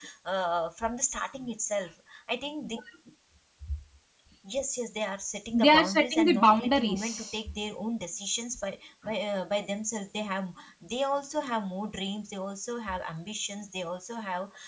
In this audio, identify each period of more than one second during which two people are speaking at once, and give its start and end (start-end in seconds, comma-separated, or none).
5.5-7.4